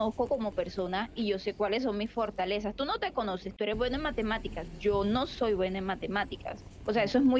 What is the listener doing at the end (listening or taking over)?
listening